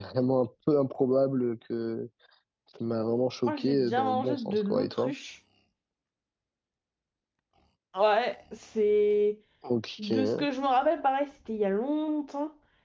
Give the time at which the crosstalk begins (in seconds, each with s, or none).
3.5 s